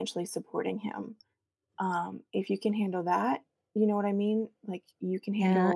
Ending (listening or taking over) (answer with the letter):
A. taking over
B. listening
A